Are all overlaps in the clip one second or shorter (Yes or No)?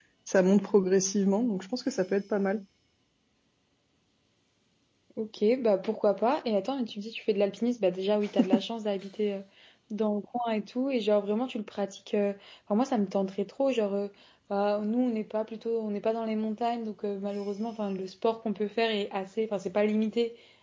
Yes